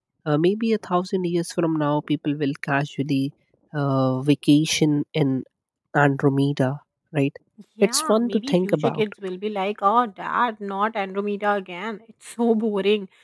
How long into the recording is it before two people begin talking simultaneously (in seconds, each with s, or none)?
7.8 s